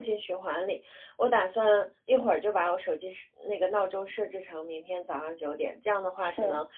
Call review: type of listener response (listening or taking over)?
listening